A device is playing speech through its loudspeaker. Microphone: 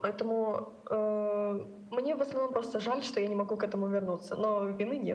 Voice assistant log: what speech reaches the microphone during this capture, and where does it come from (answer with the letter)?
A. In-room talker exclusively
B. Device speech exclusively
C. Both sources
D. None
B